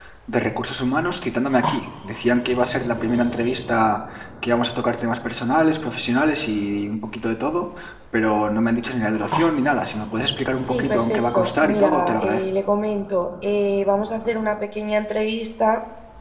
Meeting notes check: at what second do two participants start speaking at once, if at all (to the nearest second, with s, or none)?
11 s